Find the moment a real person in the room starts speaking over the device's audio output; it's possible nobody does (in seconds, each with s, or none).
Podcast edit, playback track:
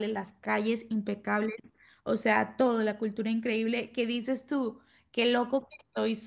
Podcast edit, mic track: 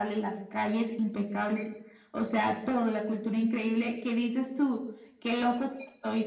none